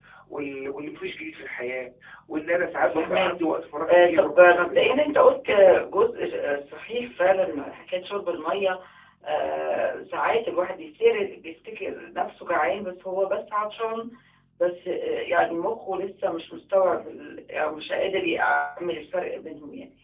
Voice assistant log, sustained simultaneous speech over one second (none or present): present